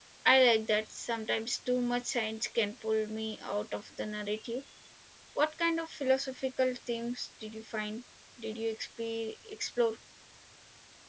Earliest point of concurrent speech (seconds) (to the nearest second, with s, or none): none